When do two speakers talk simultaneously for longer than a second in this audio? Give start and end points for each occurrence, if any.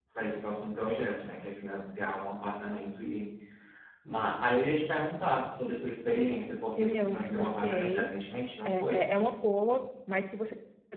6.6-8.1

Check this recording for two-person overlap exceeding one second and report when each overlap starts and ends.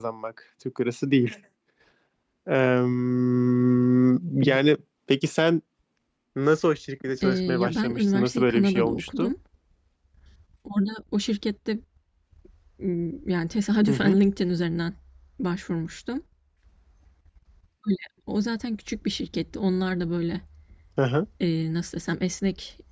7.2-9.3

